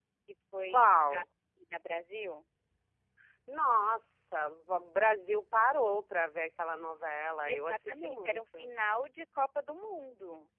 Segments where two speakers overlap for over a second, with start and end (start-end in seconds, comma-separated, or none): 7.5-8.7